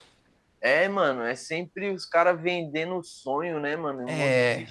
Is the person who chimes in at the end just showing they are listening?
Yes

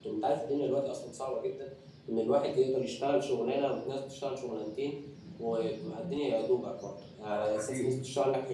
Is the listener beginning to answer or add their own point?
No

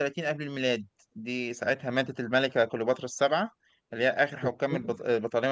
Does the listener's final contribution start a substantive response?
No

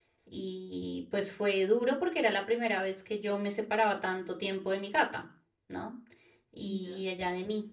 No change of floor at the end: Yes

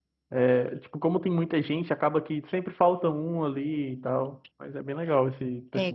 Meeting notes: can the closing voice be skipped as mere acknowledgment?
No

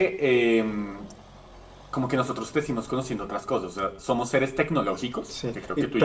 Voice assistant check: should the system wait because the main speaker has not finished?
No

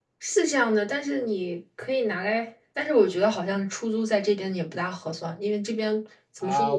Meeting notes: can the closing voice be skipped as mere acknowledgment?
No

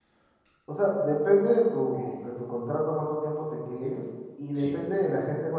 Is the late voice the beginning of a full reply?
No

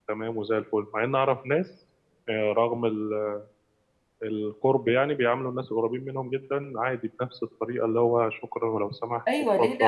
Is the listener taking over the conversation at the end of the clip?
Yes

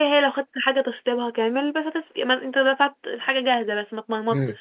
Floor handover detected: Yes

